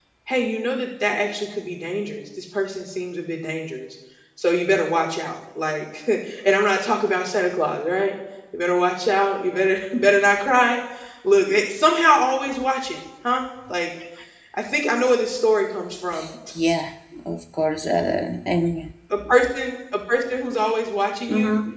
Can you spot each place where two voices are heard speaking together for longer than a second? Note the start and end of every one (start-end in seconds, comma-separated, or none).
none